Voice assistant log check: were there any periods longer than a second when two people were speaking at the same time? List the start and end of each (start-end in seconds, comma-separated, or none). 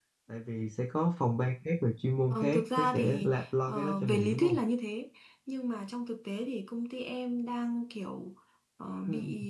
2.3-4.6